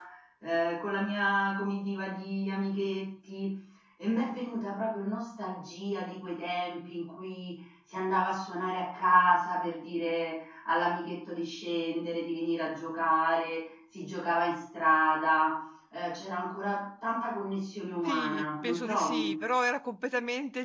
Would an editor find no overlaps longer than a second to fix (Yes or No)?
No